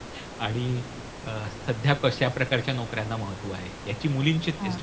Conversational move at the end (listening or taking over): listening